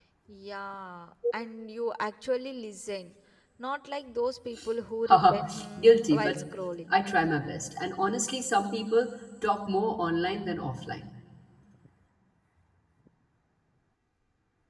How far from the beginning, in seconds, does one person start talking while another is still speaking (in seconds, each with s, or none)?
5.1 s